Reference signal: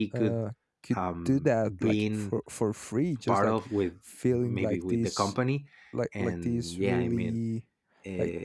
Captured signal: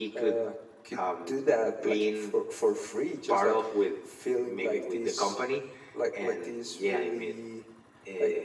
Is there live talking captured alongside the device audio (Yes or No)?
No